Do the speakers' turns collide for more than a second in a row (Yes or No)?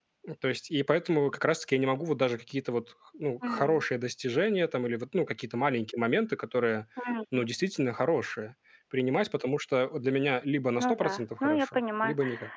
Yes